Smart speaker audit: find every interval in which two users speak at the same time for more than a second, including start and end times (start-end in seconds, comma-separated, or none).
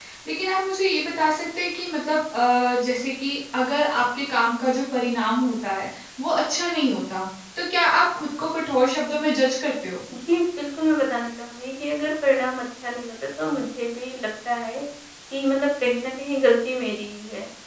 none